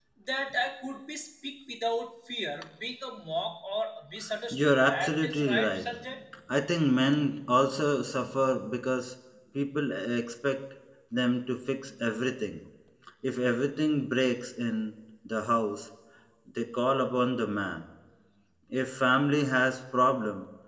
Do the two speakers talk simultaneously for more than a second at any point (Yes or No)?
Yes